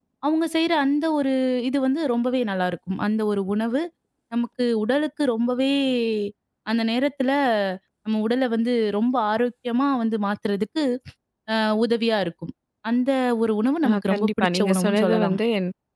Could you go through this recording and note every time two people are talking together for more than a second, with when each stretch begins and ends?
13.9-15.4

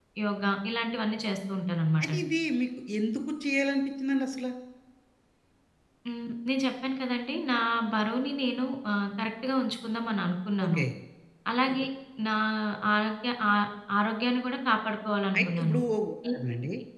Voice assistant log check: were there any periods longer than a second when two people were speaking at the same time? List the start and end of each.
none

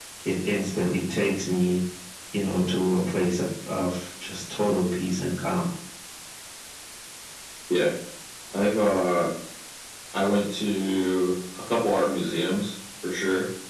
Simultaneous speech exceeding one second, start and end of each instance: none

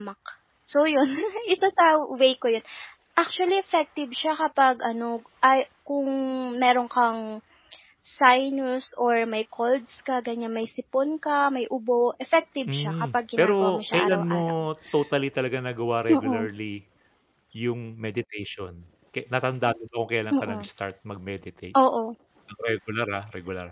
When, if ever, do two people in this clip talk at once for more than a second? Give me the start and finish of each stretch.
12.7-14.5

